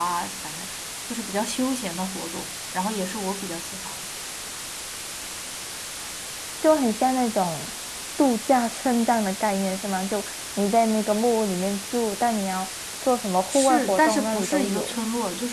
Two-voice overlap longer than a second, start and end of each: 13.5-15.0

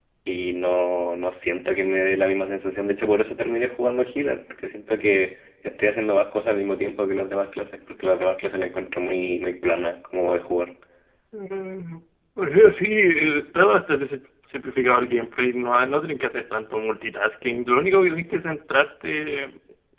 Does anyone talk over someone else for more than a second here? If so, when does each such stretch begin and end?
none

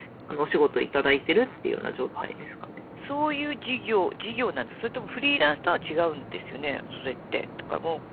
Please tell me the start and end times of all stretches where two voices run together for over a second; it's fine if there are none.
none

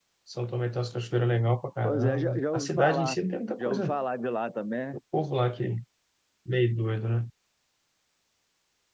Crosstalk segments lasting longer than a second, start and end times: 1.8-3.2

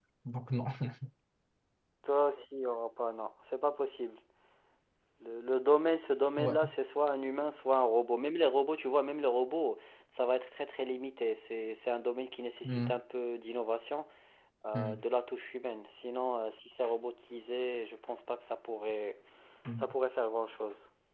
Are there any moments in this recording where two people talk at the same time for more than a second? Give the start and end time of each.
none

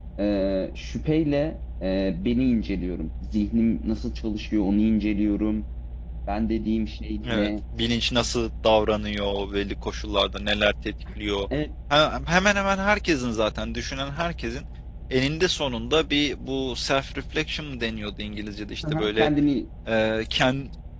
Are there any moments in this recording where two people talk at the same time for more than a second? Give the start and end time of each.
none

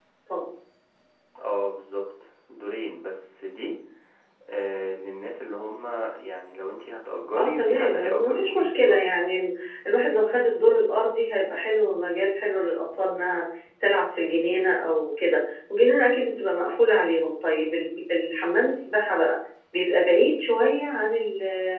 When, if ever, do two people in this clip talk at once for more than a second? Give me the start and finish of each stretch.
7.4-9.0

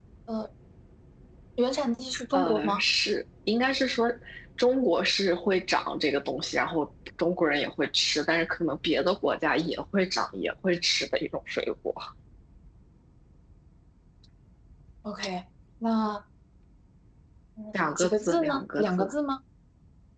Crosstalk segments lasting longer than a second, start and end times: 17.7-19.1

